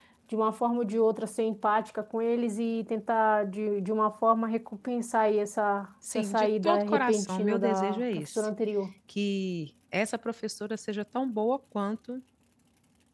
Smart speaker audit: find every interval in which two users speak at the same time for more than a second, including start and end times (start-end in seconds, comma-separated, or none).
6.2-8.5